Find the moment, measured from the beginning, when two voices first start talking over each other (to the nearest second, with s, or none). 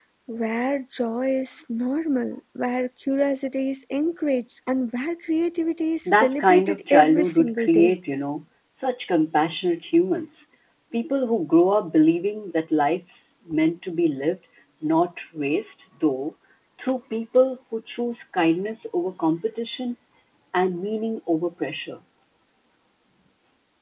6 s